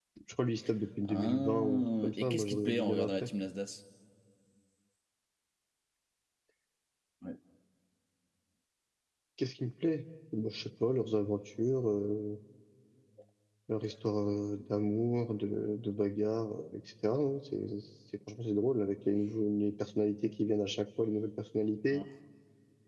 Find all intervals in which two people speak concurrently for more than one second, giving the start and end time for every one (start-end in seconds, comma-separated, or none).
1.0-3.3